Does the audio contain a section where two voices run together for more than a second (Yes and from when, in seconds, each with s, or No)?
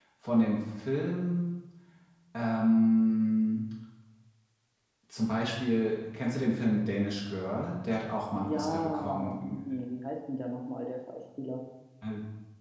Yes, from 8.4 s